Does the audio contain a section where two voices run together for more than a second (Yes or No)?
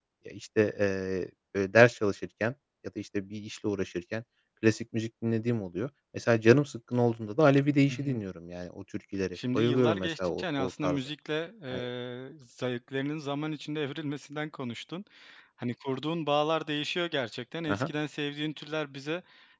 Yes